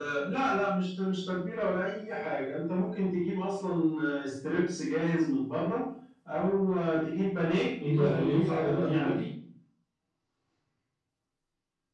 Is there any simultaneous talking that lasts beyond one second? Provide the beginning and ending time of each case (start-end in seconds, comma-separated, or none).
7.8-9.1